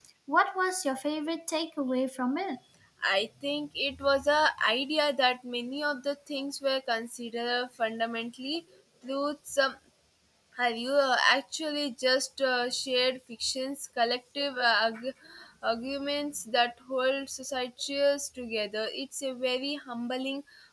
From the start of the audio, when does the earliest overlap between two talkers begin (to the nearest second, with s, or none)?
none